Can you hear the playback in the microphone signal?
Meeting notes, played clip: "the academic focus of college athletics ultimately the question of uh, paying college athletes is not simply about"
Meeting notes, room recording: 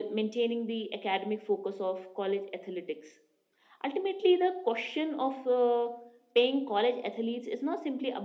Yes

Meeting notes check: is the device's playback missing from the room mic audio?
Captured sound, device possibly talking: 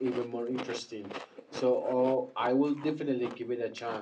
Yes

